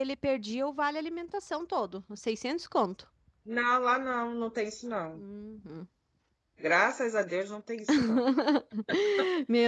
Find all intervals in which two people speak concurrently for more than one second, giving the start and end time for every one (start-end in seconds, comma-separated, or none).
none